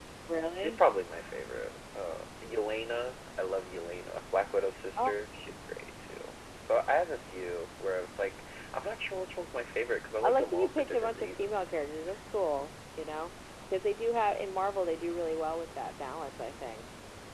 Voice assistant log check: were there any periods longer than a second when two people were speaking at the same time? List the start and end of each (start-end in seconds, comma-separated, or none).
10.2-11.5